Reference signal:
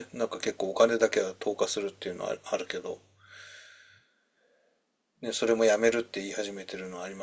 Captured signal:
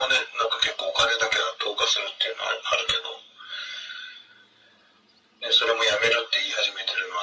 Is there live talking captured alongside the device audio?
No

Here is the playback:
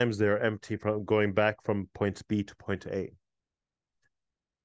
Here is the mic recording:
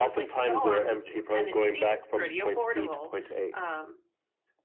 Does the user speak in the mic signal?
Yes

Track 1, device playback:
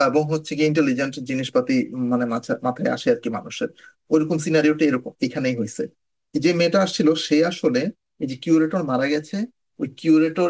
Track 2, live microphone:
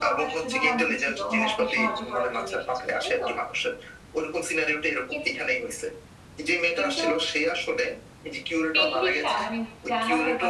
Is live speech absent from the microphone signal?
No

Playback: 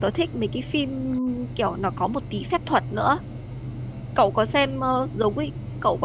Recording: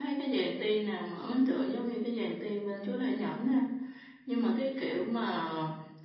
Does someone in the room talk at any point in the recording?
Yes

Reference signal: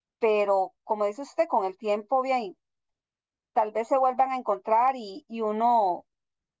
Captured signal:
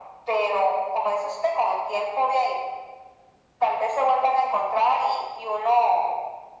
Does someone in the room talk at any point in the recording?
No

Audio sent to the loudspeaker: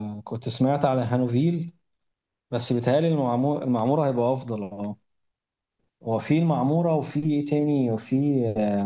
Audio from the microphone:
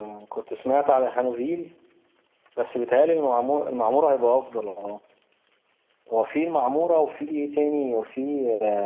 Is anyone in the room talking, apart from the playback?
No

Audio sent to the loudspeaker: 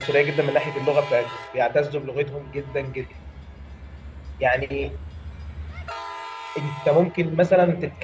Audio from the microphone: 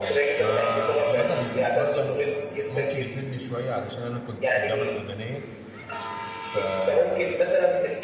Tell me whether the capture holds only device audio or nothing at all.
No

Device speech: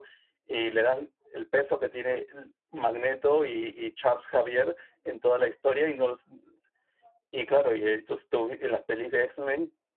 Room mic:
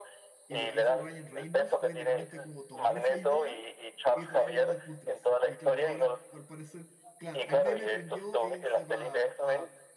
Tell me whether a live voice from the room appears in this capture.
Yes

